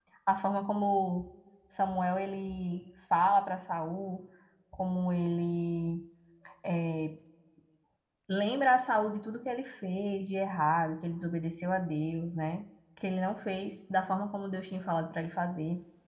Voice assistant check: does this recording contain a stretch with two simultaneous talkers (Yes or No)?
No